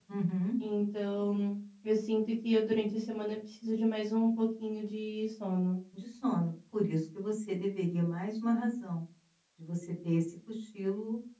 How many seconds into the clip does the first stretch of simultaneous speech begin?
none

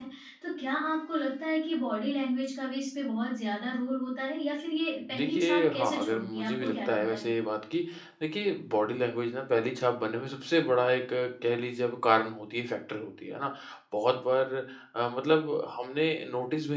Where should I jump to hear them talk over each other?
5.1 s

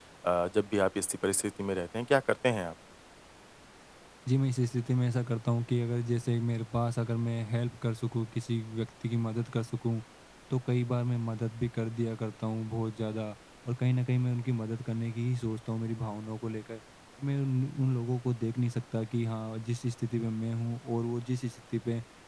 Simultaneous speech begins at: none

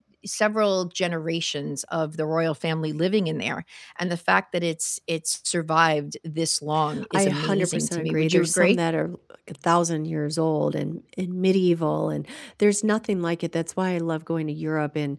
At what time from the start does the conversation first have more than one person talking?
6.9 s

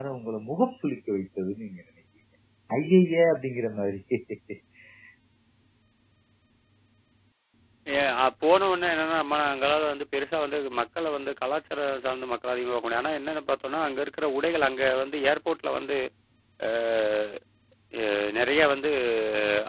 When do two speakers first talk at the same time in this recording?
none

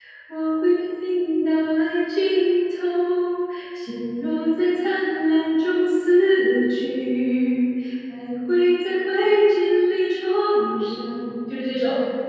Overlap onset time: none

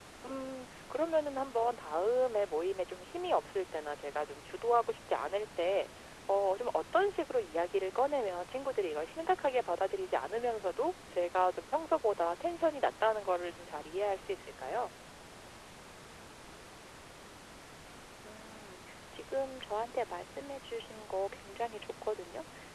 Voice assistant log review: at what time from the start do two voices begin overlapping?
none

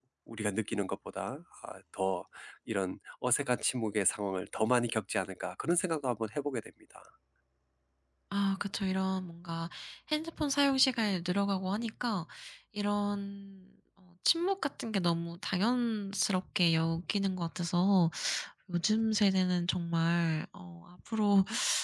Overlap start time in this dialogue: none

